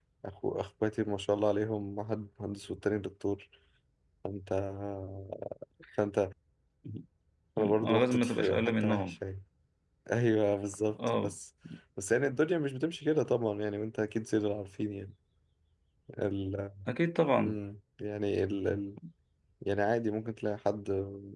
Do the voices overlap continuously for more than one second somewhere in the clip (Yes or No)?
Yes